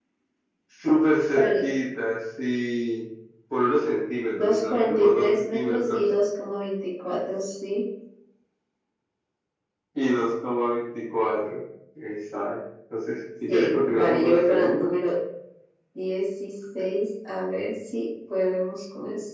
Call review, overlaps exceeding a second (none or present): present